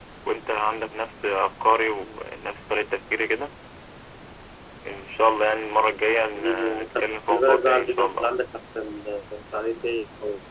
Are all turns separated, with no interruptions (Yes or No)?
No